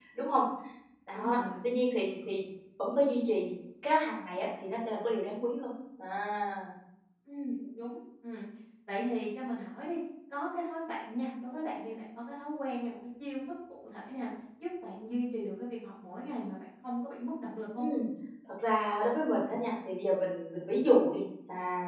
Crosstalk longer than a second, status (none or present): none